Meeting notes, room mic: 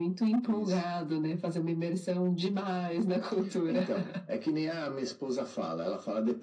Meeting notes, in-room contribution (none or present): none